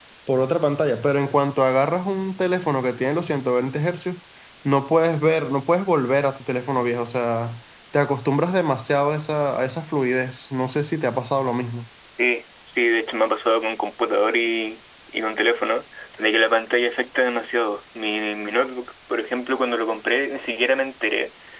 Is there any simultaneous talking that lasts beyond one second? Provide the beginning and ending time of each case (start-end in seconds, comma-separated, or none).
none